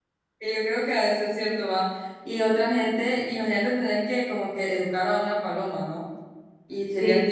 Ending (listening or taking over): listening